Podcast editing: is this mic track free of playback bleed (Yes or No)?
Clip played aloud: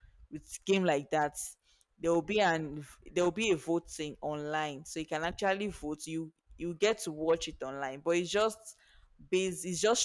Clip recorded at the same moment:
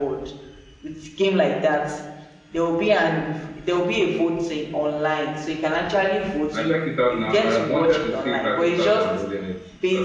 No